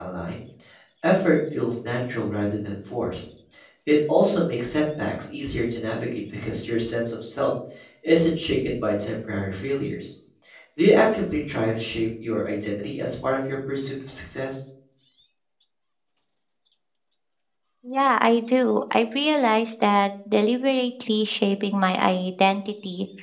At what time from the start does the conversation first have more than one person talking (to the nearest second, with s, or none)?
none